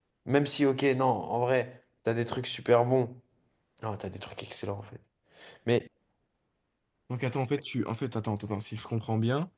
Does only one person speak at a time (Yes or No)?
Yes